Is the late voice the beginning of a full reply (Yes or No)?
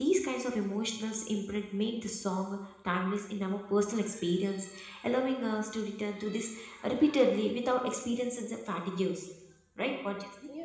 Yes